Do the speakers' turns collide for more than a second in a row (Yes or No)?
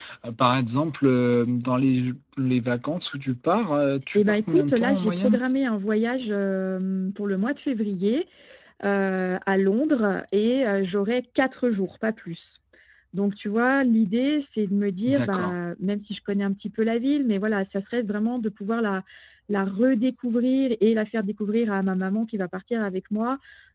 Yes